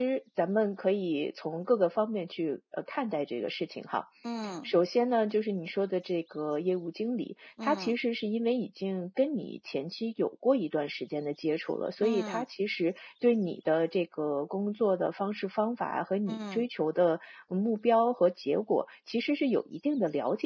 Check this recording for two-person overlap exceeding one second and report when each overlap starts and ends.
none

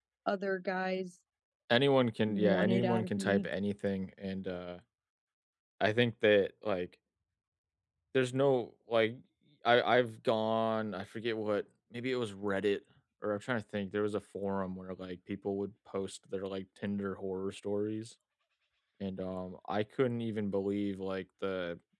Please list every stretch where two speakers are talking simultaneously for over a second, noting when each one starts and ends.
2.3-3.5

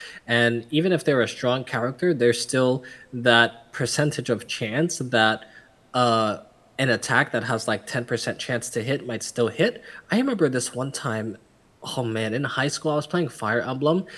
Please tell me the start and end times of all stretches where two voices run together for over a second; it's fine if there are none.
none

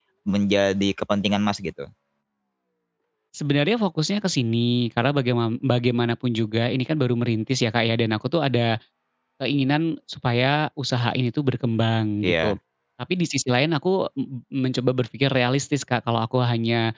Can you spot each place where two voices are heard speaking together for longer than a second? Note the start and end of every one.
none

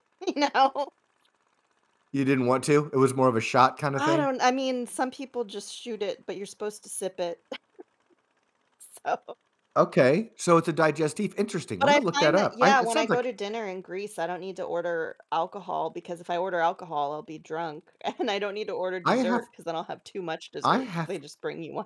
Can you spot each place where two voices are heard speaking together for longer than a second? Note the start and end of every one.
11.8-13.2

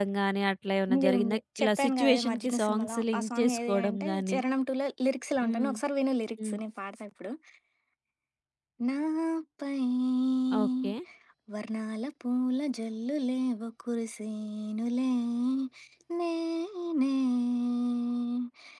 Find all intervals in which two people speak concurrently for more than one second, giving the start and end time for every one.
0.9-4.4

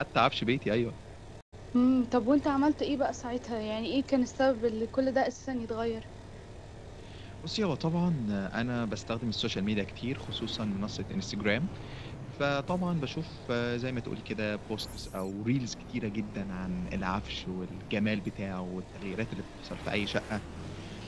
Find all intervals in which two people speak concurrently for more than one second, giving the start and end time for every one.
none

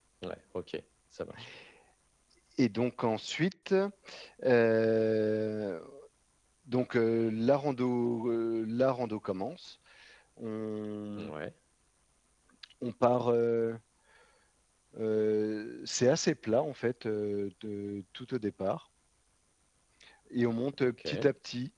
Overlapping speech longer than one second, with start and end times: none

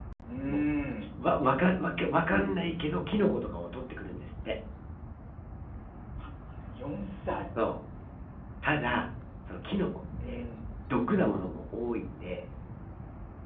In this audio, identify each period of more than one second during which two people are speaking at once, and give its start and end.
none

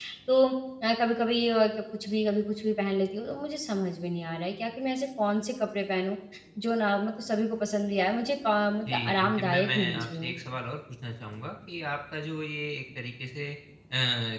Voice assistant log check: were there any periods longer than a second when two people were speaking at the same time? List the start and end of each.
8.9-10.3

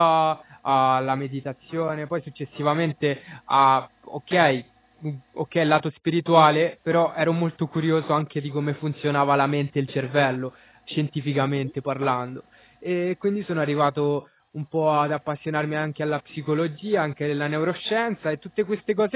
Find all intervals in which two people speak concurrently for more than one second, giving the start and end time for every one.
none

